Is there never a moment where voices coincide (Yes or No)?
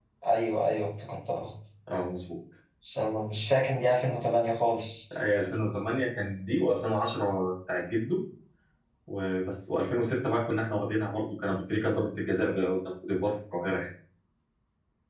Yes